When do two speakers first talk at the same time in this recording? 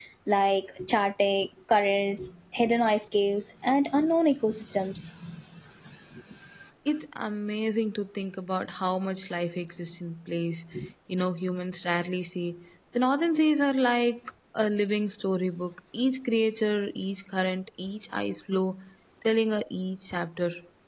none

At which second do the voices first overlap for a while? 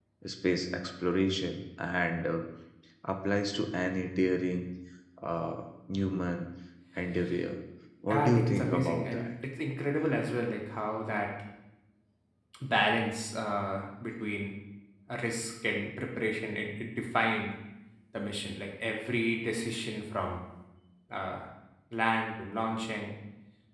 8.1 s

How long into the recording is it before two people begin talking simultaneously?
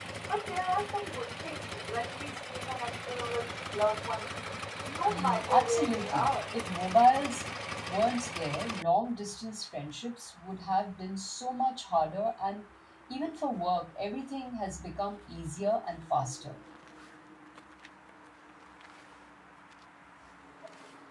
5.1 s

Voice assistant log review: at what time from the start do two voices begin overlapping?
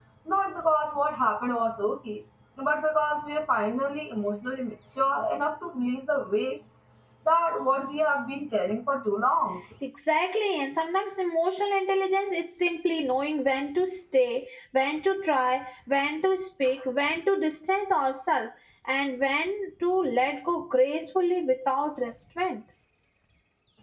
none

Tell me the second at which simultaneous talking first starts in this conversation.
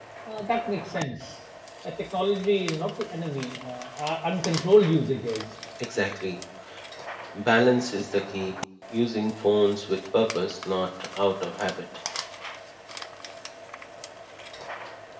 none

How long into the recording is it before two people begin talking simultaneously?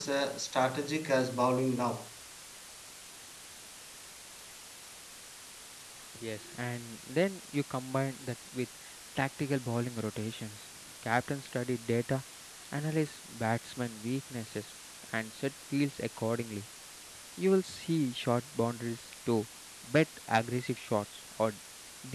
none

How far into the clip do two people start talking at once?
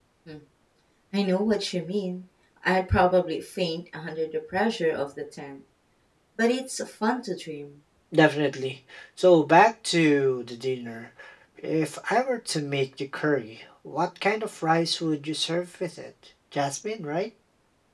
none

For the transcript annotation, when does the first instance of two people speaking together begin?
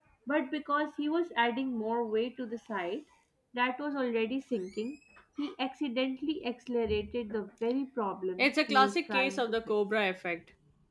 8.4 s

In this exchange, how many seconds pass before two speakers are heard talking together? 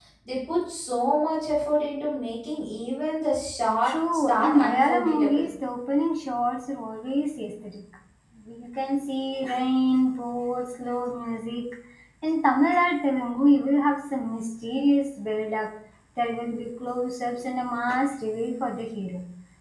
3.8 s

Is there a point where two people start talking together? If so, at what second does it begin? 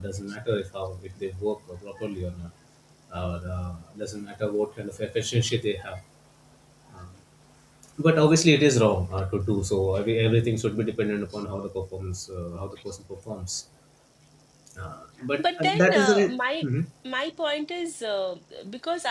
15.4 s

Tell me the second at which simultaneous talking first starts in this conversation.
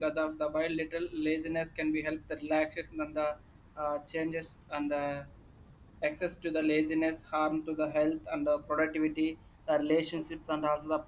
none

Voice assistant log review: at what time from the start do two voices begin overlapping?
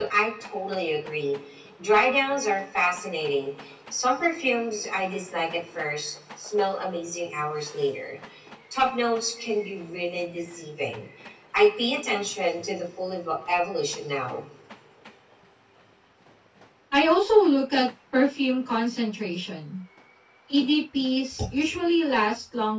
none

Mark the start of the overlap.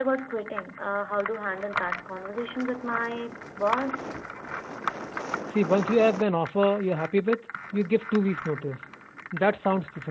none

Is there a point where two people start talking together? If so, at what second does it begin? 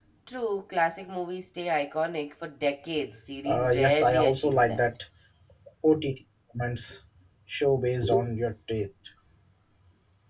3.4 s

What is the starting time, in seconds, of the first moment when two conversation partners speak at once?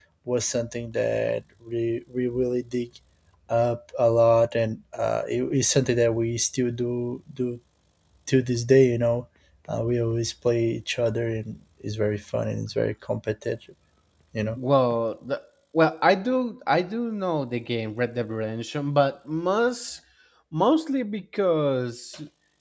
none

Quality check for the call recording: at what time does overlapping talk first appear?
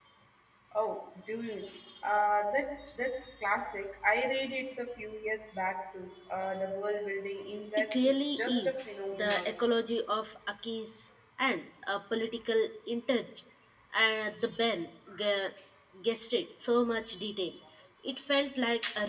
7.8 s

